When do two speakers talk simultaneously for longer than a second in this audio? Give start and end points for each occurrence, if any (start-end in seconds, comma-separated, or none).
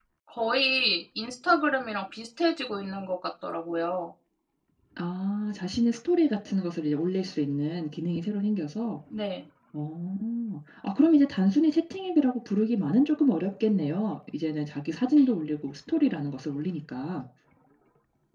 none